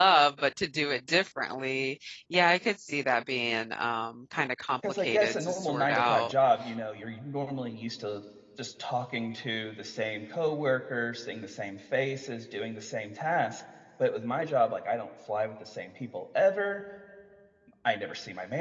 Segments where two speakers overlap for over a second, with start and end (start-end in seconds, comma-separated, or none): 4.9-6.3